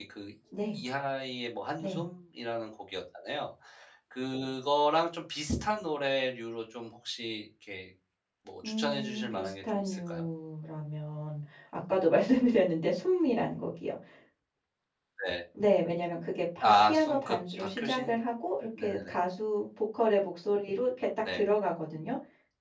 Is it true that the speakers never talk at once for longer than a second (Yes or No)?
No